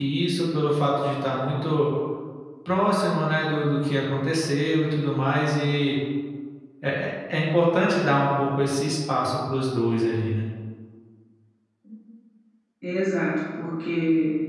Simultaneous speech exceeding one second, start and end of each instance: none

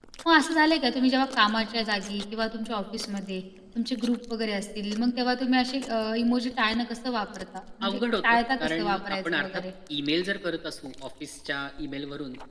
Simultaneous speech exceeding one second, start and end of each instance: 7.8-9.6

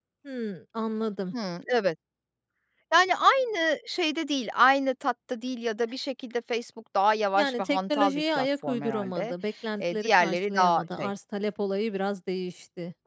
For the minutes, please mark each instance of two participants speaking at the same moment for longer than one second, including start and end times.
7.3-9.3, 9.8-11.1

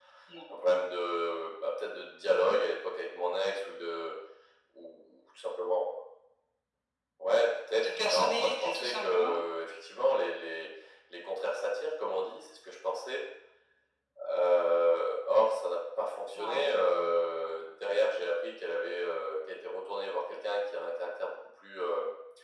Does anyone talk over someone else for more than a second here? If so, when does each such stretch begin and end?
7.8-9.1

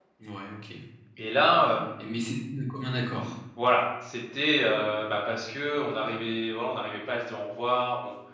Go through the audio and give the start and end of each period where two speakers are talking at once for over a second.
none

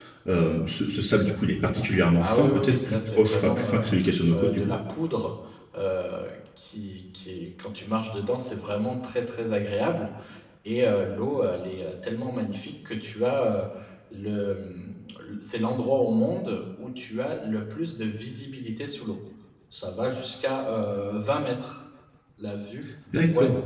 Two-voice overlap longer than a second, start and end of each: 2.2-3.9

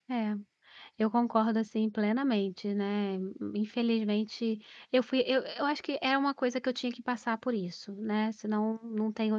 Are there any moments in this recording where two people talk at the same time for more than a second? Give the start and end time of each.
none

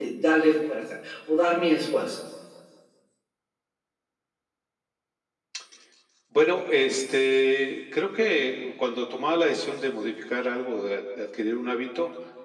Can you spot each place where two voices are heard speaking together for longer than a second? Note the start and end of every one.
none

